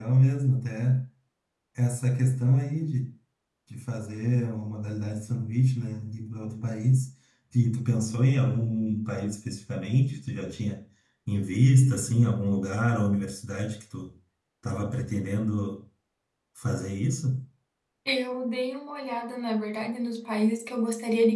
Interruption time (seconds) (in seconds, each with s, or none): none